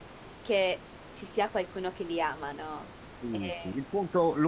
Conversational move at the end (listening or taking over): taking over